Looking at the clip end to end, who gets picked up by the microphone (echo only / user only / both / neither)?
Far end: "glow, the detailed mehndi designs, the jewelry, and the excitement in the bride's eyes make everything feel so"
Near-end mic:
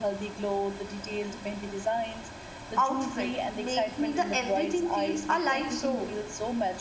both